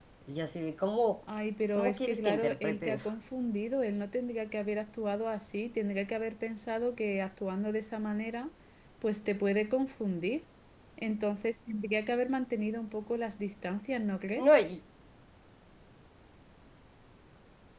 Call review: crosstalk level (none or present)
present